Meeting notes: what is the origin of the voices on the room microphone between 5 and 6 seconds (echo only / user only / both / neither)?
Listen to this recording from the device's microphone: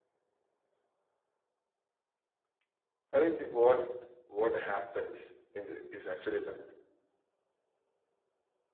user only